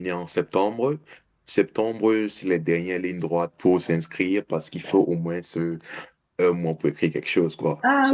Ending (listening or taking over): taking over